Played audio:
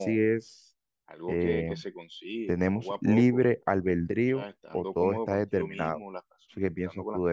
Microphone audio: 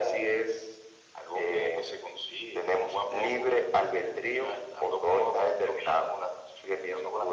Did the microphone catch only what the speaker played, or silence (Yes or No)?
Yes